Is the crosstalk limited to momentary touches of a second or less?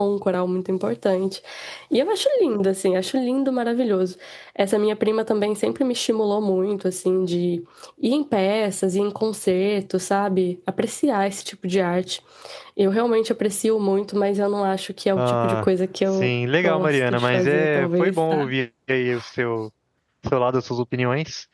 No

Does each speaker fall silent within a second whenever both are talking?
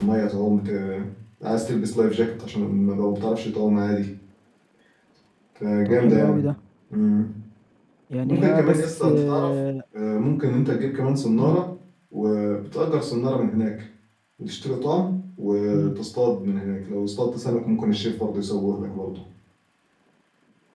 No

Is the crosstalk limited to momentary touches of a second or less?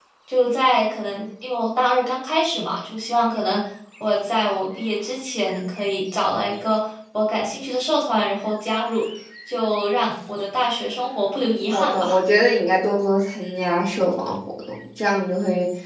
Yes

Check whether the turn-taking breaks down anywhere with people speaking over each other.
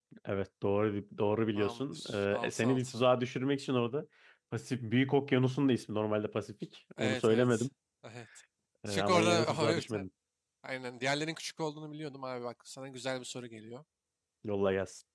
Yes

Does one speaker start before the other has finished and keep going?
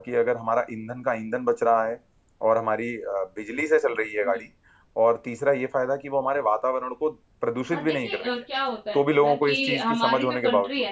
Yes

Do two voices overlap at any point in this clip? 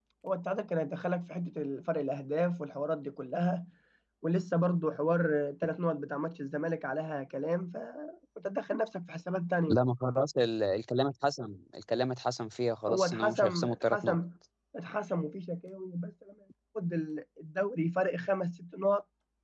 Yes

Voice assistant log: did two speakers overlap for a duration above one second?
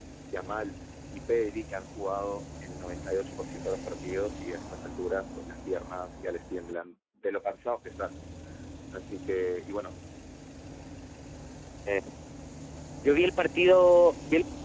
No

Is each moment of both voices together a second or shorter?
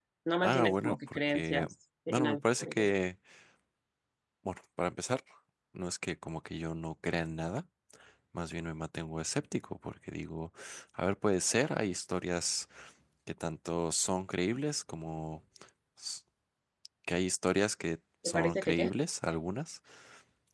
No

